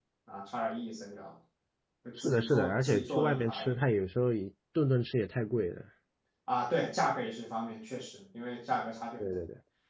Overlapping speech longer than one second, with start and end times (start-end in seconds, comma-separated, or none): 2.2-3.8